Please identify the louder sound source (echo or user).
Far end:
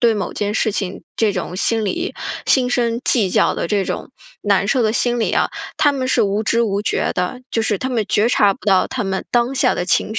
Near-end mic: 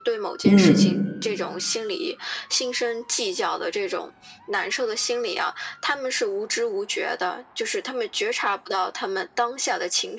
user